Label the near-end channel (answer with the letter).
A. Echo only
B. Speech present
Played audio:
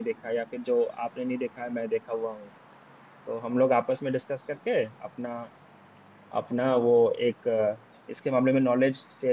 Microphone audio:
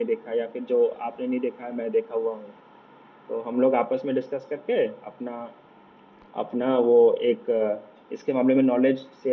A